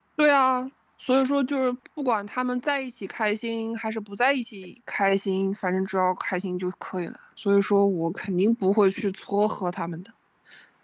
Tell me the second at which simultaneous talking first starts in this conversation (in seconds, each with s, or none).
none